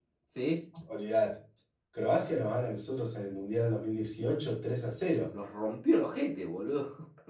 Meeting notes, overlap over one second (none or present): none